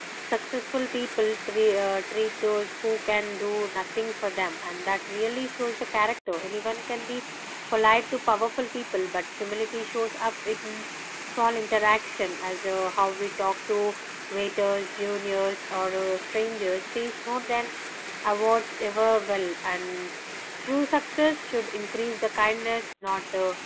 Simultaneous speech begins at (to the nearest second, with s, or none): none